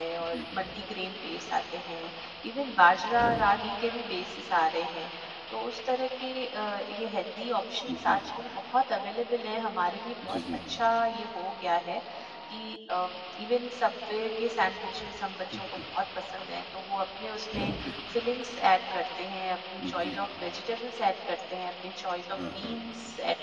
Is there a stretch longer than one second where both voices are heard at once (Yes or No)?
No